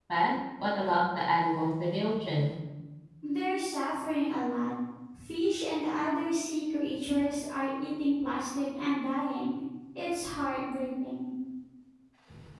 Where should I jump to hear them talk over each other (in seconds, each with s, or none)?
none